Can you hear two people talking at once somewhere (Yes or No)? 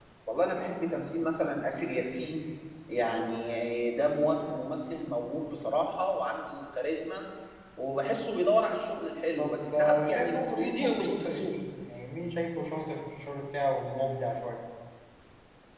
Yes